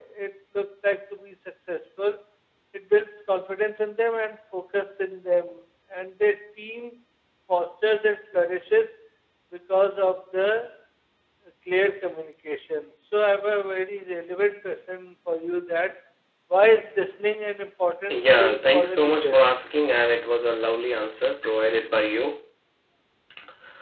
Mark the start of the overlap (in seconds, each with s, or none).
18.1 s